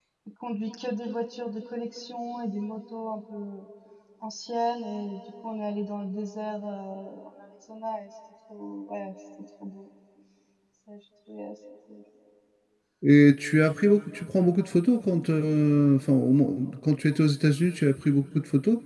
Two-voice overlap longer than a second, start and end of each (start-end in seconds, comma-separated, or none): none